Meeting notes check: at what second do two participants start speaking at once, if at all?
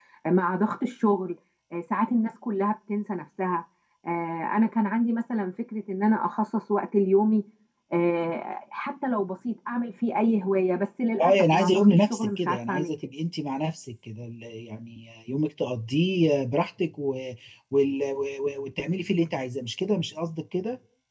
11.2 s

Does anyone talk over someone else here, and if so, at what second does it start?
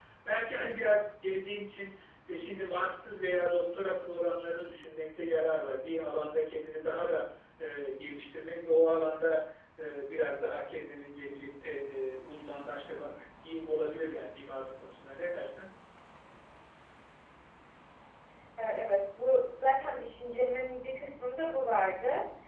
none

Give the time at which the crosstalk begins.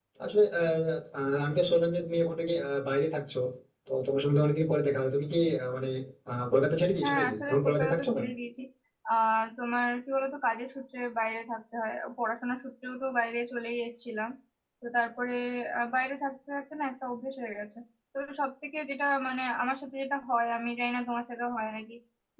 7.0 s

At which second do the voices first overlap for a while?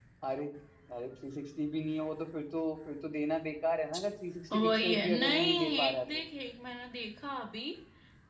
4.5 s

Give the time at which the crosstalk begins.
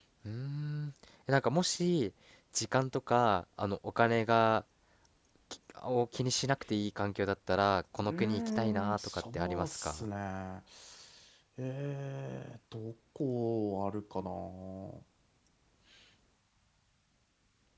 8.0 s

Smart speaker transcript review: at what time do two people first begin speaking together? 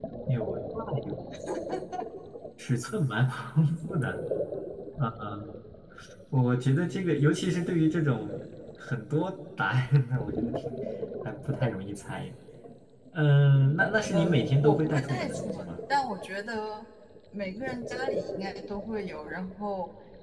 14.1 s

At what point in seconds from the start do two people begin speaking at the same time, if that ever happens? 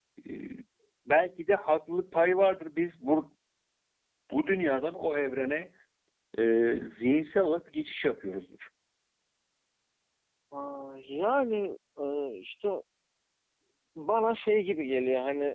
none

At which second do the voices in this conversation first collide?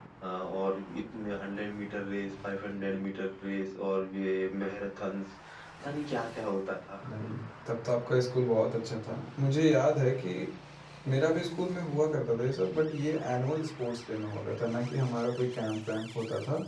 none

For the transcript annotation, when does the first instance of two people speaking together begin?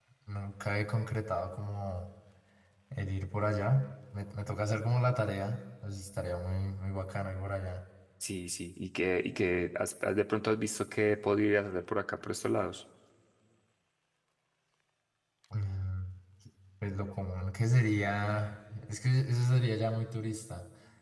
none

